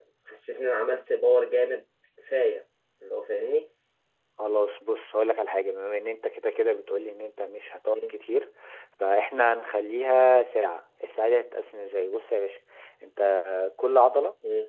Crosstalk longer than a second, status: none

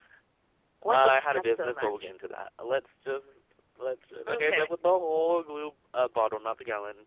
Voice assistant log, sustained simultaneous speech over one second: present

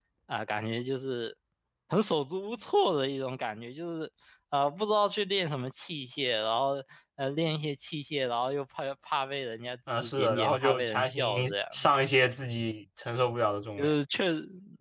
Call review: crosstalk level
present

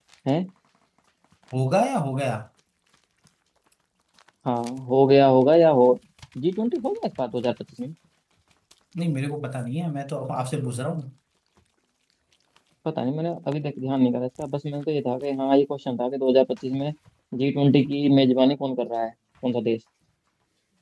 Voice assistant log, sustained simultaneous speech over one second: none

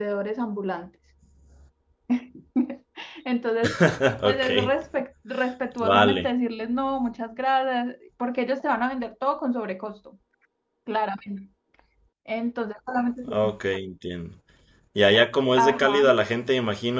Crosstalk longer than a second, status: none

